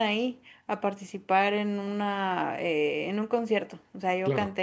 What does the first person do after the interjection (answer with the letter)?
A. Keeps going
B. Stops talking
A